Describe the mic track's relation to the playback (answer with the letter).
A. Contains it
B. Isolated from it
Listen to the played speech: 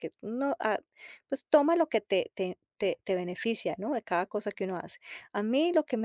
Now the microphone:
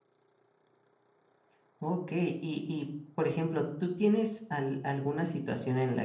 B